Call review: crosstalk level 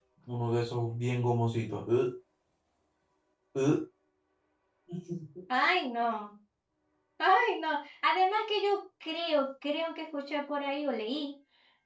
none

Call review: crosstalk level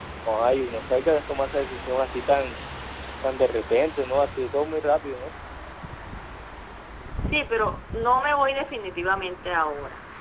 none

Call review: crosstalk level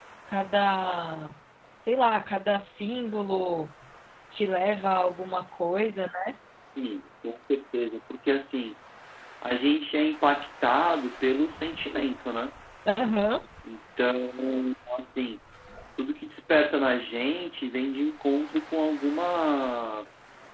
none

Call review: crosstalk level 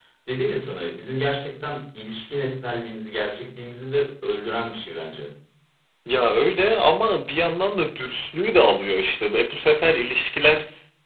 none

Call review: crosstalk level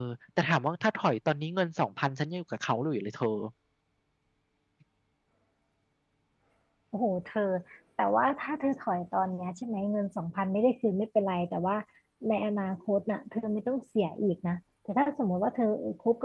none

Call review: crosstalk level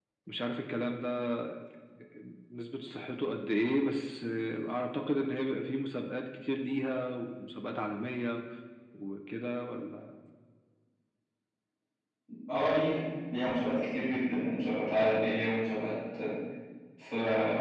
none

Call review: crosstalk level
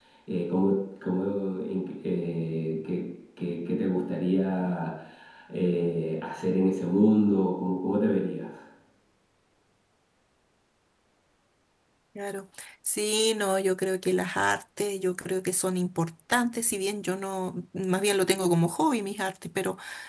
none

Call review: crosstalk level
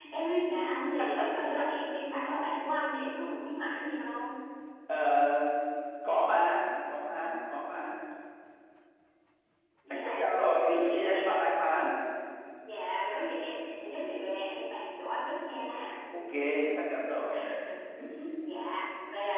present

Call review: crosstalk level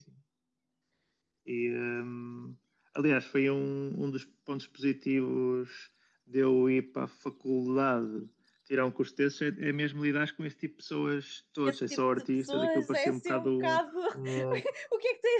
present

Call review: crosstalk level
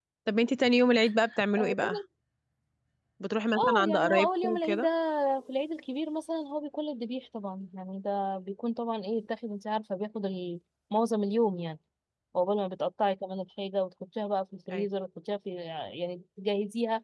present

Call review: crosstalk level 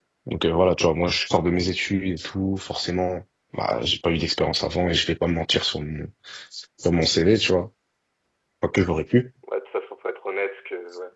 none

